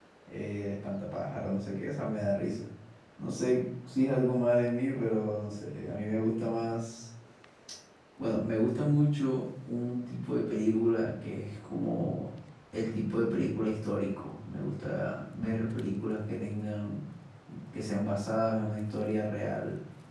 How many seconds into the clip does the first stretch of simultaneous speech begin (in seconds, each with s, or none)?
none